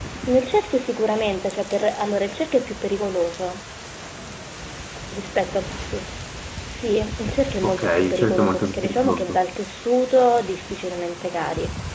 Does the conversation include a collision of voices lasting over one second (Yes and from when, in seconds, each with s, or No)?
Yes, from 7.6 s